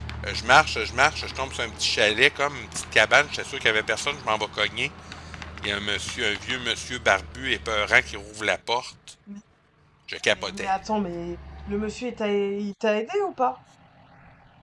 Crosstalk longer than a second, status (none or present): none